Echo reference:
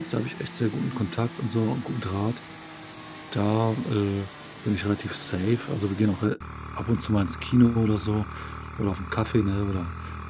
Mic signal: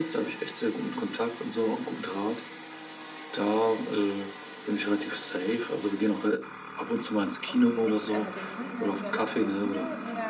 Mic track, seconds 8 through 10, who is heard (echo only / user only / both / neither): both